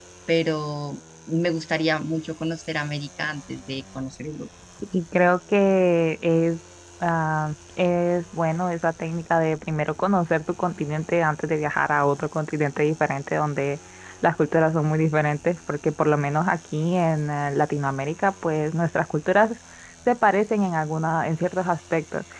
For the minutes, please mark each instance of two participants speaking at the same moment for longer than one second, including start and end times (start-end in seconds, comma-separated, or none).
none